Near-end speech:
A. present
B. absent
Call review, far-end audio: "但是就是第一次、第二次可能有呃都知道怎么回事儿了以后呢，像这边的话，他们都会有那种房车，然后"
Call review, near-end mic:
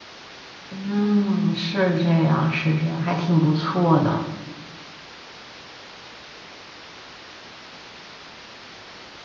A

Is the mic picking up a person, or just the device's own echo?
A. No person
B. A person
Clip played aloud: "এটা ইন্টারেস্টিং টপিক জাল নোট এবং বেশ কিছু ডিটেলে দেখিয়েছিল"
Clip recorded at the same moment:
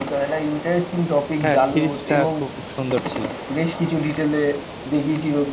B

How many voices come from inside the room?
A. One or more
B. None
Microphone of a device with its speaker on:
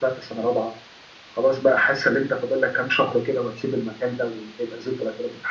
B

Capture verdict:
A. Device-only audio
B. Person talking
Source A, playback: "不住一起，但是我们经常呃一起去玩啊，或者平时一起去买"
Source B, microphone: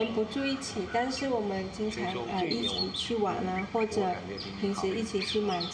B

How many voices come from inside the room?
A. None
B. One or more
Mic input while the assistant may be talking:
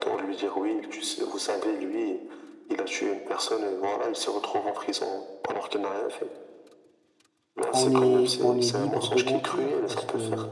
B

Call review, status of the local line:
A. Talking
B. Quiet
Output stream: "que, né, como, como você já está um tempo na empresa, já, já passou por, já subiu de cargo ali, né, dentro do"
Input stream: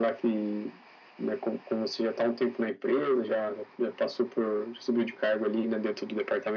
B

